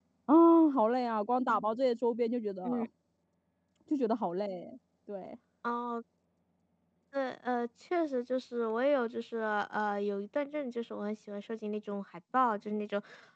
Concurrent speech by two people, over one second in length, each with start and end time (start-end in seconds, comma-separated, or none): none